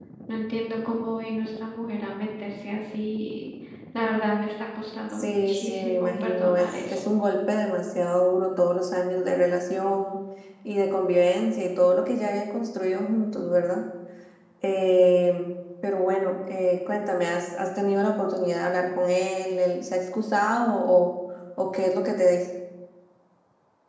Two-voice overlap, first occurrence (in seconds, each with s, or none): 5.2 s